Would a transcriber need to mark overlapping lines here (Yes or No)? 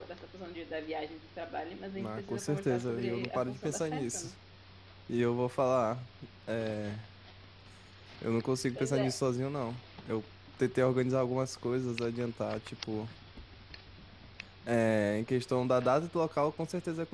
Yes